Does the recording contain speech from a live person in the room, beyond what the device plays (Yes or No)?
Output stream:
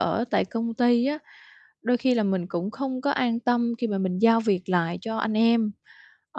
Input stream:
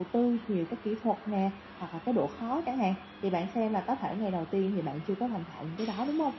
Yes